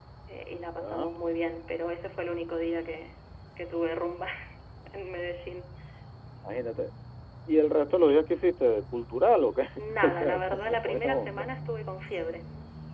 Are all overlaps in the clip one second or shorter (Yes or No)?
No